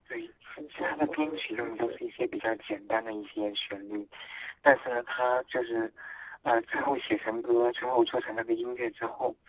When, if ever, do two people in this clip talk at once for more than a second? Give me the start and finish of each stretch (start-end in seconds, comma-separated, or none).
0.7-2.0